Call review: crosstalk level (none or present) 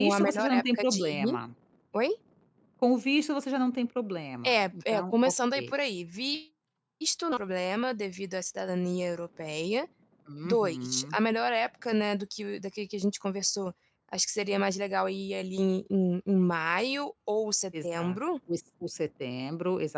present